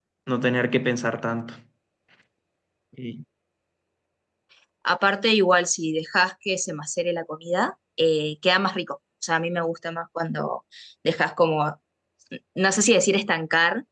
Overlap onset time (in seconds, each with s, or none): none